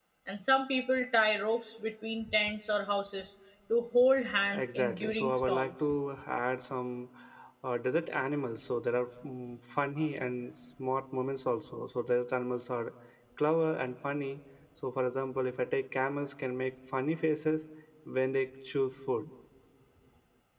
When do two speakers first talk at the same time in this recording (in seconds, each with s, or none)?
4.5 s